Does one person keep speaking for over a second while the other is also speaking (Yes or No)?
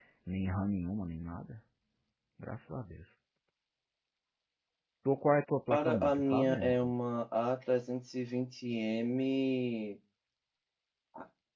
Yes